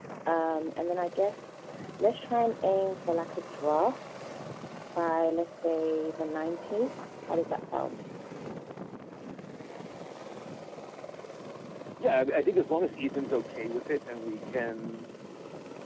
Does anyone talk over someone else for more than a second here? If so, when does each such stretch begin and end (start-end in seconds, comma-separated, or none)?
none